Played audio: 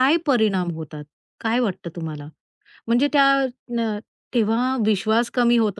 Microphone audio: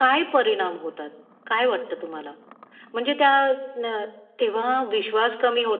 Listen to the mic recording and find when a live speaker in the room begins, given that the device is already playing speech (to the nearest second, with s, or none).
none